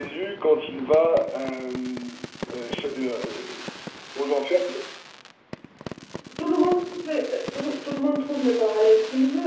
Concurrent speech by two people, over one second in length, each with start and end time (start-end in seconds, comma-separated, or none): none